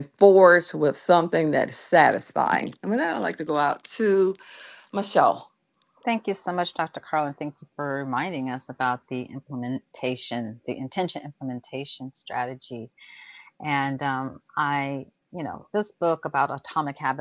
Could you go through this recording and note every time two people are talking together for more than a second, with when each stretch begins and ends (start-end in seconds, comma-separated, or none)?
none